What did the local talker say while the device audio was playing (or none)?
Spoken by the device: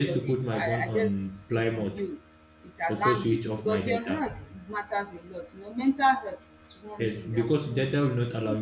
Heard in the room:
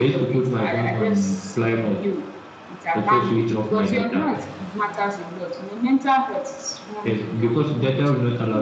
none